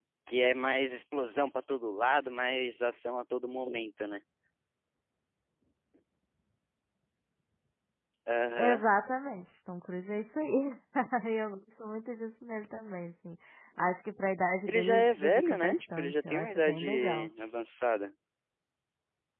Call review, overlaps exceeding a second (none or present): present